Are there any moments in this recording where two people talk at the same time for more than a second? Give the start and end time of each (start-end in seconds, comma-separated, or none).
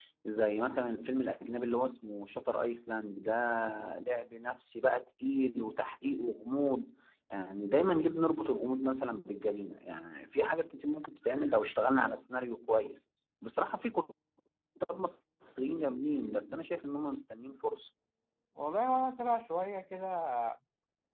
none